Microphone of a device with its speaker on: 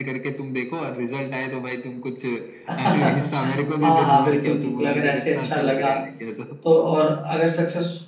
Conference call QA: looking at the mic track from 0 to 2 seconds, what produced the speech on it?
echo only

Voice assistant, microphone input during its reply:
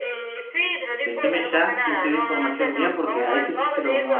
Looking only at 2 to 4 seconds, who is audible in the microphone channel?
both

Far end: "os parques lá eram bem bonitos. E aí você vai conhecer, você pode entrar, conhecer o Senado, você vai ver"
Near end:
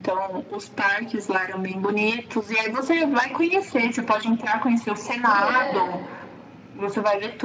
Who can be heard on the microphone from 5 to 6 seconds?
both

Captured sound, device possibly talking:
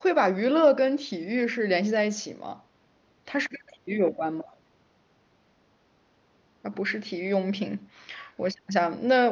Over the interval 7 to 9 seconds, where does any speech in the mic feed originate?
user only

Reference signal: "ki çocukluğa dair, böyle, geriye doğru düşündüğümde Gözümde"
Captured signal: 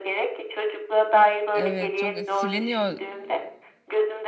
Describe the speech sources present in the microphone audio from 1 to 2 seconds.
both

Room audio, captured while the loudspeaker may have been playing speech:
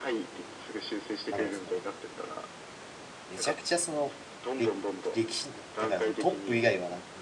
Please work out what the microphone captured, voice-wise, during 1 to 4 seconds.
both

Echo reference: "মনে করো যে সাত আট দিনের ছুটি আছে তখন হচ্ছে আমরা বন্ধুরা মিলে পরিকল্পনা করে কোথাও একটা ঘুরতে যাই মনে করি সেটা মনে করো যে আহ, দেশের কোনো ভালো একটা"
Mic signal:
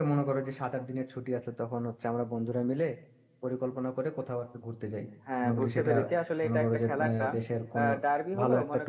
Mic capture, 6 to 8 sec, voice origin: both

